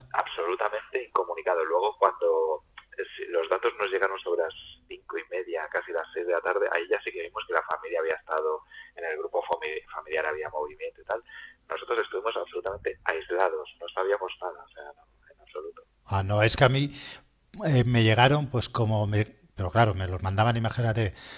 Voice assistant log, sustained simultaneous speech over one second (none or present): none